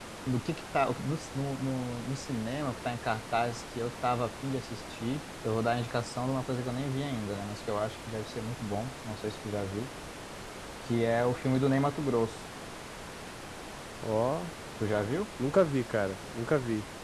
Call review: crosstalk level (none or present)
none